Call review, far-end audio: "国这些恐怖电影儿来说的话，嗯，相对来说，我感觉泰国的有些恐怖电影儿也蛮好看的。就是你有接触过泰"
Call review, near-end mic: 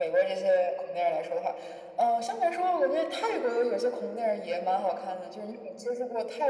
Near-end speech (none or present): none